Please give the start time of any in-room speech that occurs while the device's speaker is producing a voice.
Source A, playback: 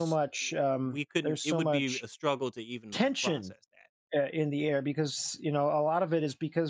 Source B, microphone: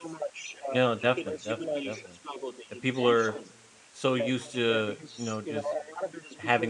0.7 s

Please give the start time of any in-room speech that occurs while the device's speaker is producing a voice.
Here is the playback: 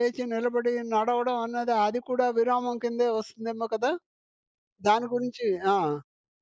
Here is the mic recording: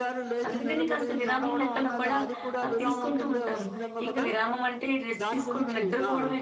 0.4 s

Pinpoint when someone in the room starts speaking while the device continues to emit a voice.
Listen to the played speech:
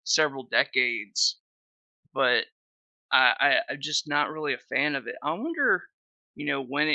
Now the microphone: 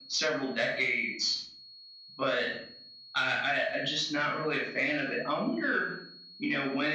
none

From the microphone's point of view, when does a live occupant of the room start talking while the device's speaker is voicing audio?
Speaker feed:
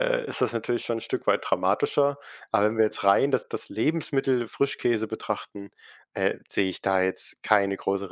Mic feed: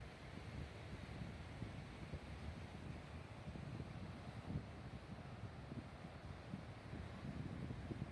none

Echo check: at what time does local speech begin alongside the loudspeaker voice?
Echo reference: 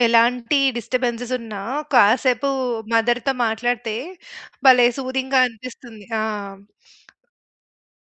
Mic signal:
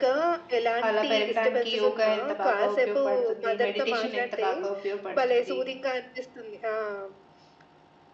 0.9 s

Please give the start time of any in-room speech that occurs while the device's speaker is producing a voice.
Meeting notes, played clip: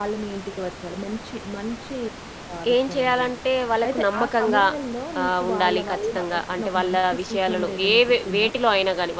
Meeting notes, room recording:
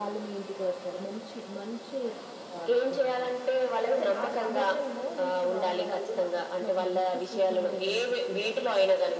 none

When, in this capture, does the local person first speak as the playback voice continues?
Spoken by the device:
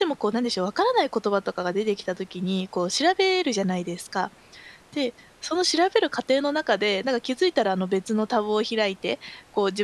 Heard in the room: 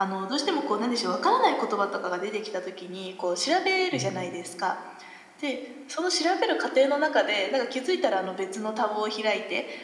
3.9 s

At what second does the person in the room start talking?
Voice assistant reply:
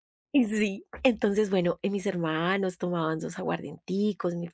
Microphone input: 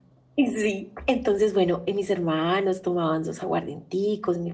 none

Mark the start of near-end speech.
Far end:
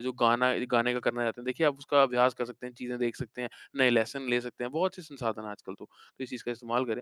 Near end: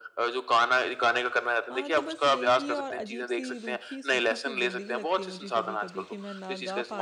1.7 s

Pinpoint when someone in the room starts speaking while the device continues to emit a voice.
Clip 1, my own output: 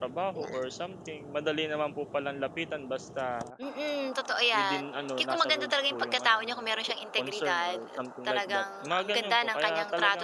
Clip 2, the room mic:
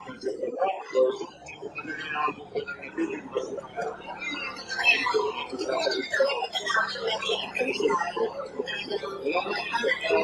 none

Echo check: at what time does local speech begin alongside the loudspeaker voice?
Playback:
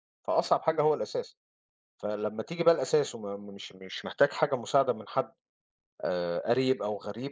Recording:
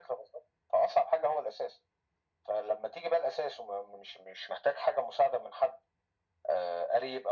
none

